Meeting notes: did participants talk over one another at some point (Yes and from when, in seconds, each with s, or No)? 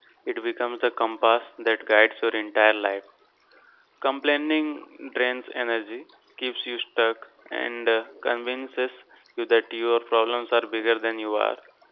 No